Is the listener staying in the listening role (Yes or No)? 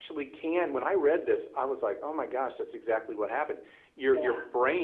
Yes